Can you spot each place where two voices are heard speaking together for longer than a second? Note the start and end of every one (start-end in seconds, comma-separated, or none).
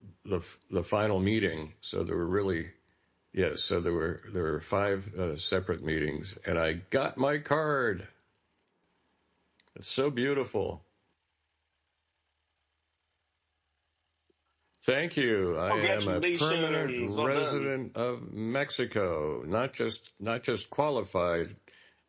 15.7-17.7